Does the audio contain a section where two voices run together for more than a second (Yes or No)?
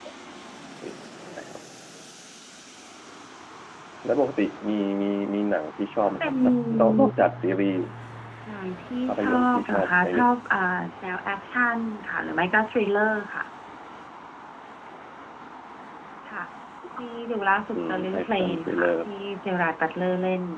Yes